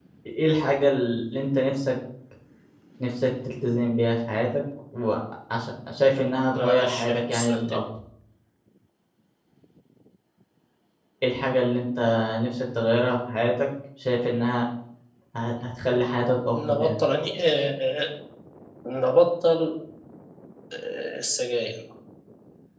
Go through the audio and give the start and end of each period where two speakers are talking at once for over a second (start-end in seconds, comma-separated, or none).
6.5-7.8